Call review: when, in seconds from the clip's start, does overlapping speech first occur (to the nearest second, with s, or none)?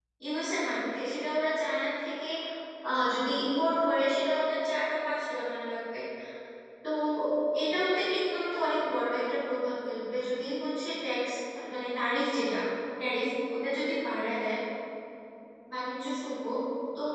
none